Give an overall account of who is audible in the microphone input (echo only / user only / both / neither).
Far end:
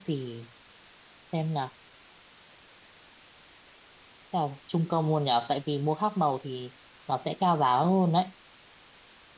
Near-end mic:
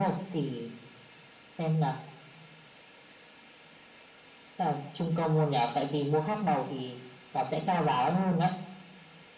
echo only